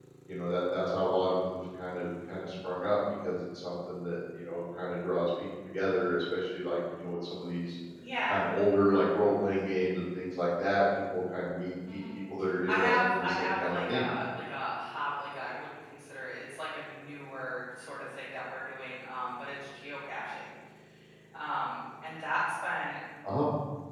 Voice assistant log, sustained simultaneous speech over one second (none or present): present